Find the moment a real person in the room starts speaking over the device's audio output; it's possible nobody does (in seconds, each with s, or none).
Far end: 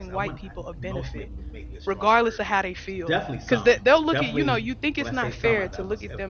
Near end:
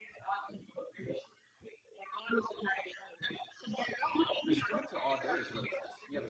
4.4 s